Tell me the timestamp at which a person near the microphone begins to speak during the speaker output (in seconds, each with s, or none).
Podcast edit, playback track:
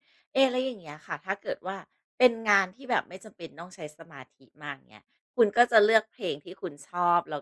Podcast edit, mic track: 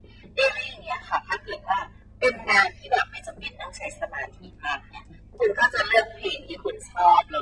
none